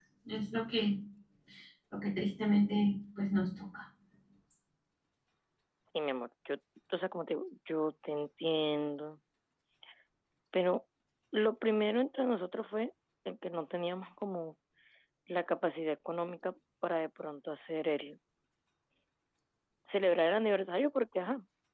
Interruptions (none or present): none